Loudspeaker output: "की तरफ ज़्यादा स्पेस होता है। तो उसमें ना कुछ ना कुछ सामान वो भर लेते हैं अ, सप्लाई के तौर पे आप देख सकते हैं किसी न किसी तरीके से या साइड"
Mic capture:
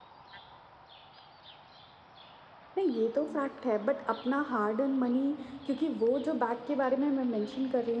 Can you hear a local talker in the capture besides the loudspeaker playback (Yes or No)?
Yes